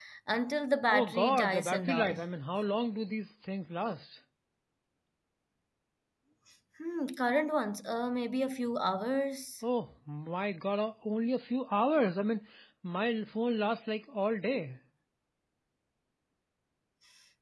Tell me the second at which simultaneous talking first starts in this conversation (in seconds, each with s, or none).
0.9 s